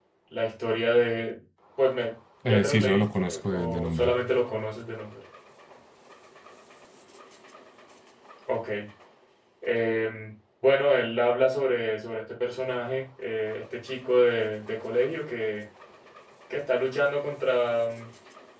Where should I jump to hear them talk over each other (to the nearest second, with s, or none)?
2 s